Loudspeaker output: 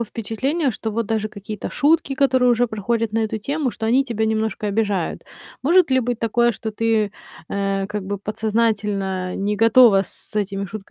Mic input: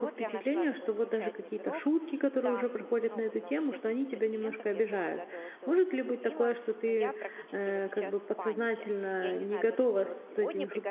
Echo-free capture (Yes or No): No